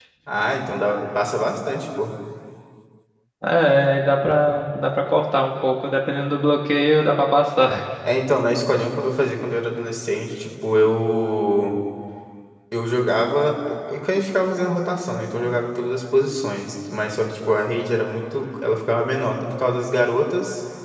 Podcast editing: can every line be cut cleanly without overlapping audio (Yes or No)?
Yes